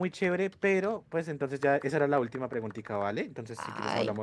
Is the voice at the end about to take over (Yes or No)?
Yes